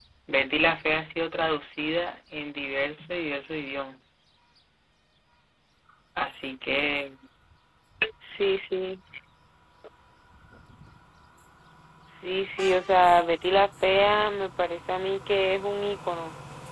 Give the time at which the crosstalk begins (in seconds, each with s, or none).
none